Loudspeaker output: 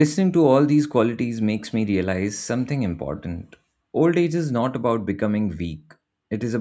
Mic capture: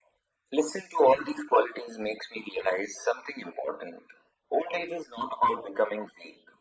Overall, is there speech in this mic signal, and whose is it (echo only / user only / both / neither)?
echo only